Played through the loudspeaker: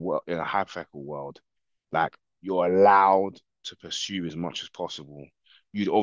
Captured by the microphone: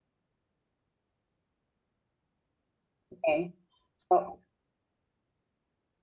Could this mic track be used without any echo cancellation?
Yes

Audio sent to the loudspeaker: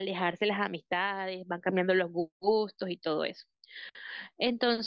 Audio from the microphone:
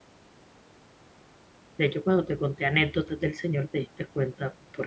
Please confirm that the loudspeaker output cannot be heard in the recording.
Yes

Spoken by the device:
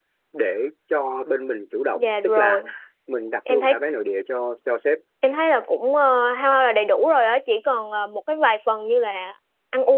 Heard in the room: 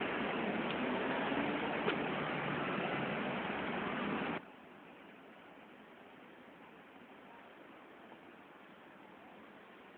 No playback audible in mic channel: Yes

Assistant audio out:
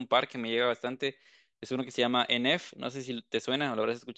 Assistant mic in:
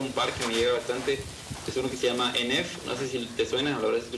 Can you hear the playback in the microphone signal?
Yes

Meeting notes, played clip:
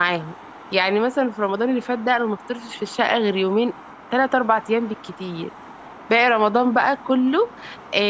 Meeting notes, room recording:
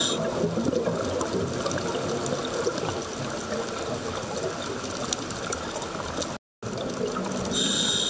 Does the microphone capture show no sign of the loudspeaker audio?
Yes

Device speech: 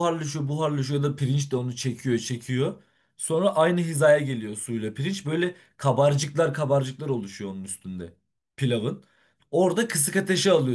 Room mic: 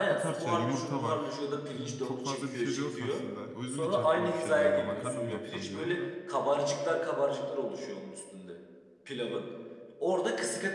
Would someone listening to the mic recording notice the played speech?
Yes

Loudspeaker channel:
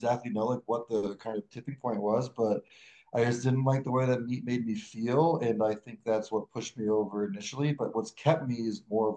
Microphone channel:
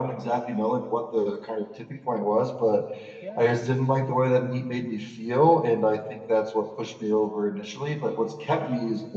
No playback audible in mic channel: No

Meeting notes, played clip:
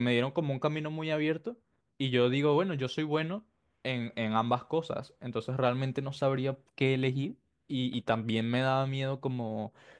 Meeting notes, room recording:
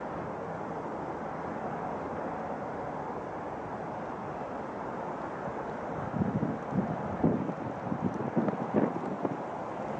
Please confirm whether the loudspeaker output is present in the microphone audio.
No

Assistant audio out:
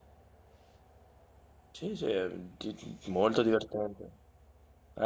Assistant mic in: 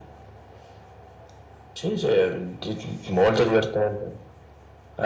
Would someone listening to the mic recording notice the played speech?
Yes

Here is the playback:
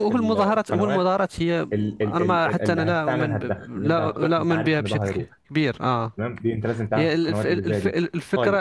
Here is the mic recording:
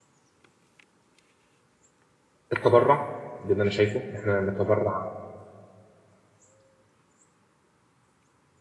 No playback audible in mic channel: Yes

